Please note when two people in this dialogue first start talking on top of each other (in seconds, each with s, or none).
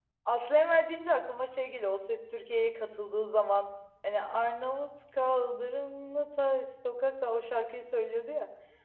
none